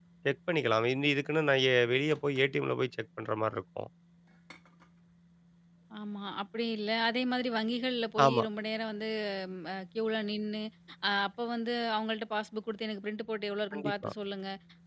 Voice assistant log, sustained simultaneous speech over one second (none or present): none